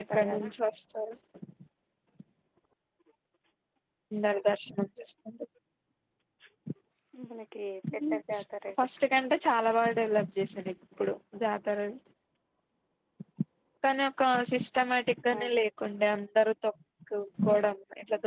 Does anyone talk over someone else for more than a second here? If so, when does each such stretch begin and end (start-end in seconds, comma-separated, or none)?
none